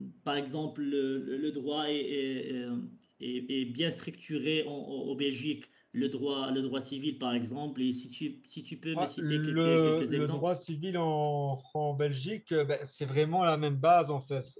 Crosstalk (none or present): present